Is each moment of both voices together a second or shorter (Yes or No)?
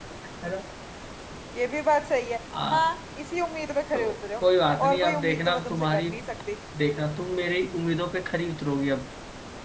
No